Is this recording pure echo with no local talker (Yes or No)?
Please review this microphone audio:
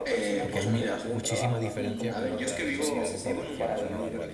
No